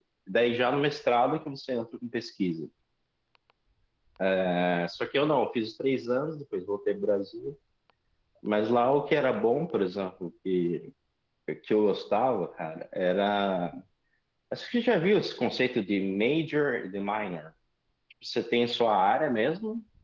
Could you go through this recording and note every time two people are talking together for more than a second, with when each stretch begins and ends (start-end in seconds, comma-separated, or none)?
none